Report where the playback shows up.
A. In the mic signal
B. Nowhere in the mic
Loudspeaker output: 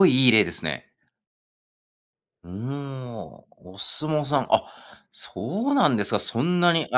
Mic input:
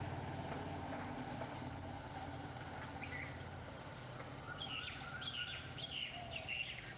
B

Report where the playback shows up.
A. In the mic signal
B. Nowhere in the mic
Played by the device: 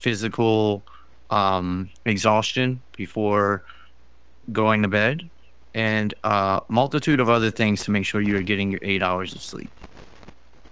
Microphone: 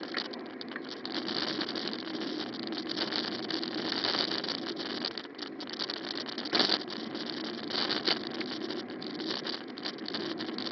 B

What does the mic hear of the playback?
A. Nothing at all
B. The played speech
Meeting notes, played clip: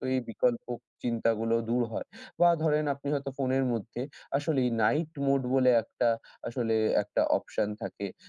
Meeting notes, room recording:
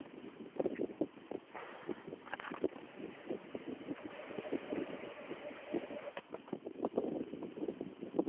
A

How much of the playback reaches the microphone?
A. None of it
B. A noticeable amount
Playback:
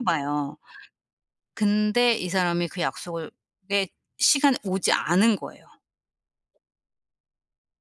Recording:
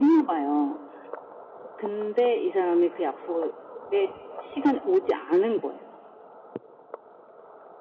B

